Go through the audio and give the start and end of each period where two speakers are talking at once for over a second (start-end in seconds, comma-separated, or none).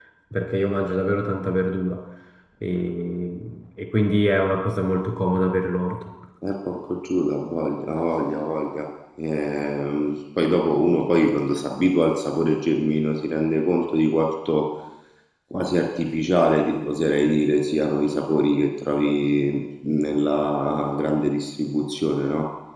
none